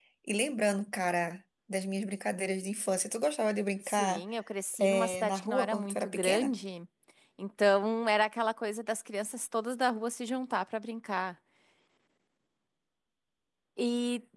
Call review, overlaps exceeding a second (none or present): present